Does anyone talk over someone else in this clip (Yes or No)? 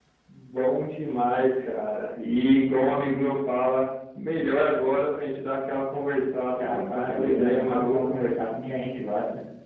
Yes